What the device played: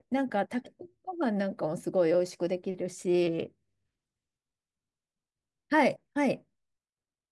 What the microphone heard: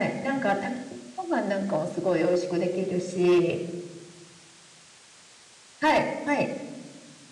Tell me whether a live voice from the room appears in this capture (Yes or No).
No